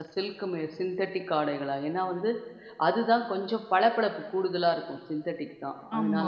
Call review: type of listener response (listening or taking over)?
taking over